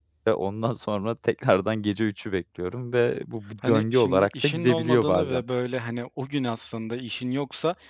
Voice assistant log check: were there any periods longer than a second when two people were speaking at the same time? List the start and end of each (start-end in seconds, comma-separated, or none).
3.6-5.4